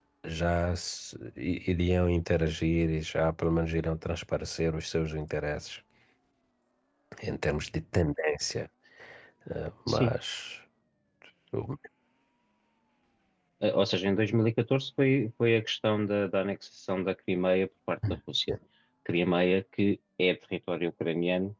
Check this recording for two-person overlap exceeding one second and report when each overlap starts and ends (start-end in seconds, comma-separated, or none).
none